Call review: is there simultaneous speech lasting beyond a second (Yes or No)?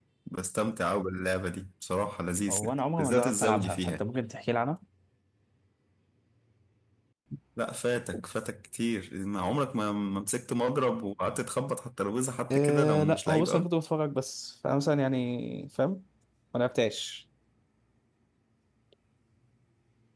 Yes